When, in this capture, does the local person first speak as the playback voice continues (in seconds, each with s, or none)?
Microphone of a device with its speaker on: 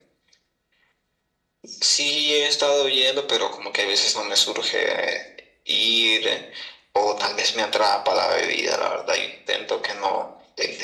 none